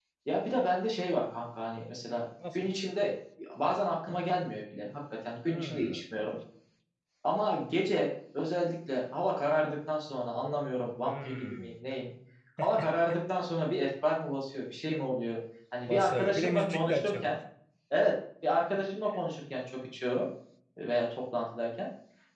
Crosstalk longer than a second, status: present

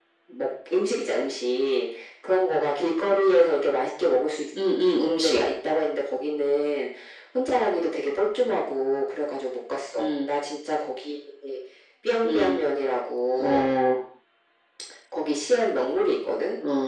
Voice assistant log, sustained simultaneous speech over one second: none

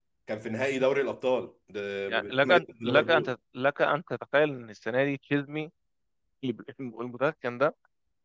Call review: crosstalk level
present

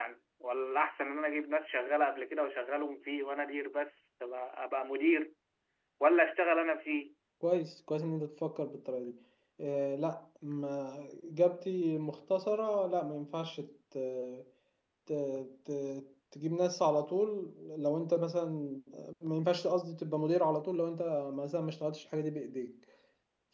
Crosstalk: none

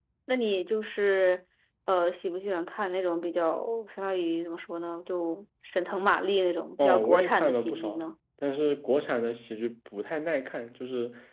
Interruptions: present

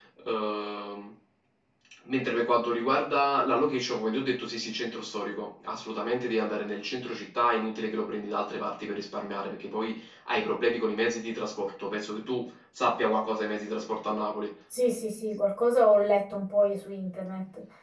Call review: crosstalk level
none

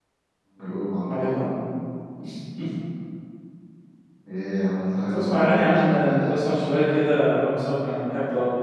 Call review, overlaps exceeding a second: present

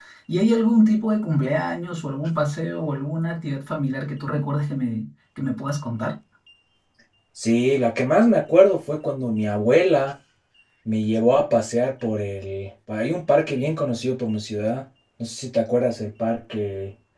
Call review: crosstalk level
none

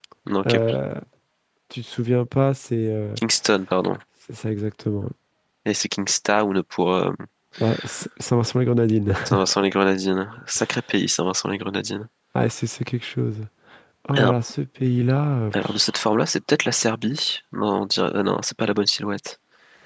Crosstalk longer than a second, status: none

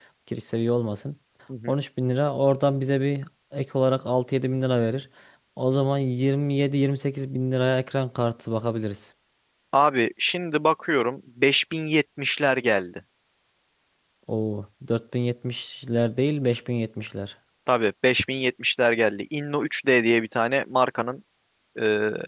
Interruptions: none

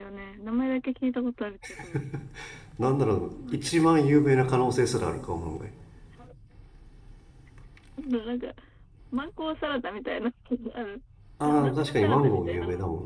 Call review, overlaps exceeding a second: present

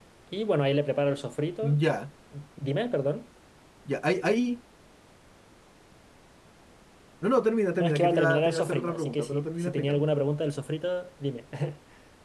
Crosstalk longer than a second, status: present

